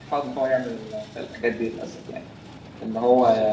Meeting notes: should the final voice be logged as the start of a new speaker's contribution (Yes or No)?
No